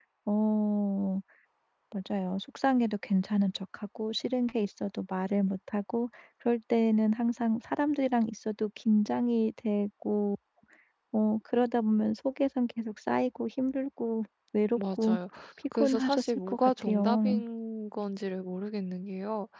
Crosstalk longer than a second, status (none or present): present